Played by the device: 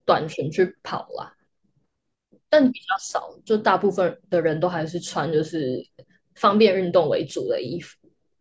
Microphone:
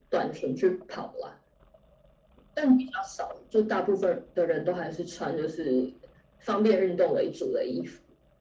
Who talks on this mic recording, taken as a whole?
echo only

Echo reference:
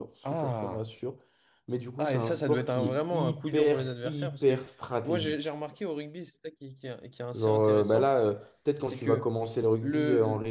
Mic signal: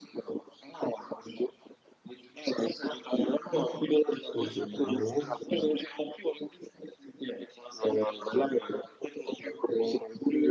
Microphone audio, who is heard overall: both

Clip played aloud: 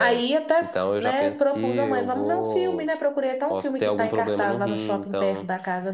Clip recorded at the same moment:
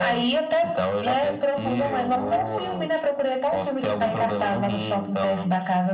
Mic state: echo only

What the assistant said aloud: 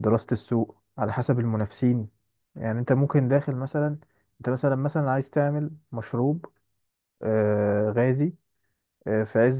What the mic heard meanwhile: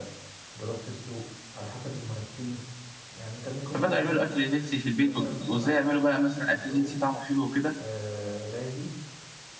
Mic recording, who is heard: both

